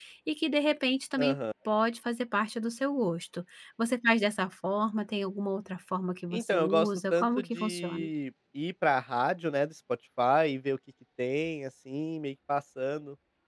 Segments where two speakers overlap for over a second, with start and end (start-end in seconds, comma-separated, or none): 6.3-8.1